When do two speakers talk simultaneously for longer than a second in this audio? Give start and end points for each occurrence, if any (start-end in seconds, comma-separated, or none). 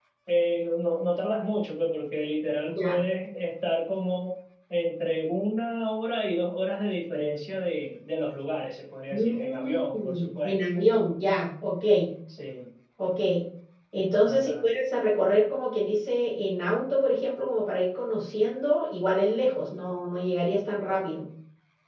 9.1-10.6